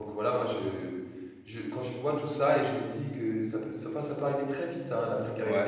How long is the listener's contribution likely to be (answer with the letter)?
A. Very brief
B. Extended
B